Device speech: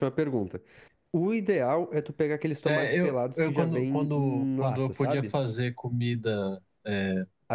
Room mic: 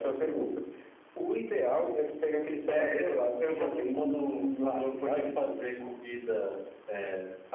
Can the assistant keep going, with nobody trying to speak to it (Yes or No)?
Yes